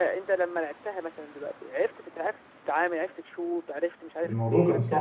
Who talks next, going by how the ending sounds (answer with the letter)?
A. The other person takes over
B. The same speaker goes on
A